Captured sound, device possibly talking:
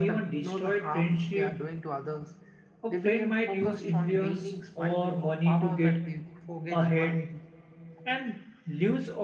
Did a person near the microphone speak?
No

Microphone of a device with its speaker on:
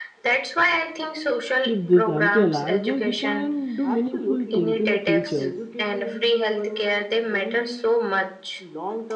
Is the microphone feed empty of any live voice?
No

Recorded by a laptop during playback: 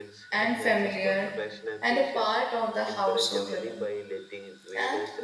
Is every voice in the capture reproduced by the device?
No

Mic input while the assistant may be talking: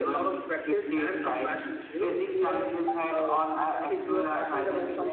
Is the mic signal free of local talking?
No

